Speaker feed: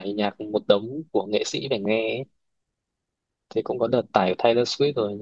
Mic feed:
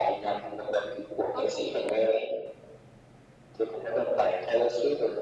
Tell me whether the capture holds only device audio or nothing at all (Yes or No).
No